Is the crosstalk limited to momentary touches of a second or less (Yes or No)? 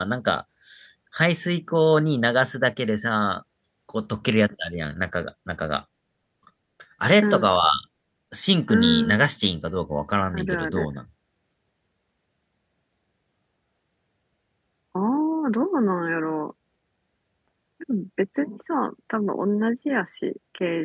Yes